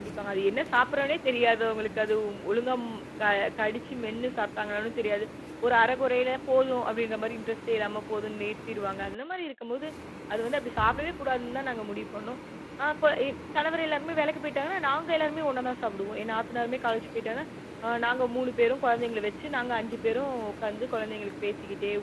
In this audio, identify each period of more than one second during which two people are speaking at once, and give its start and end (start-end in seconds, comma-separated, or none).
none